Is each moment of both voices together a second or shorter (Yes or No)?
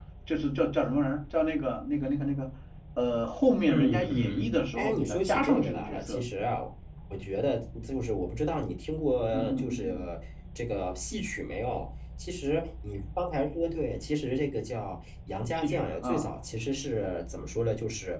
No